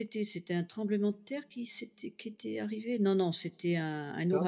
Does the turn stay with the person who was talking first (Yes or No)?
Yes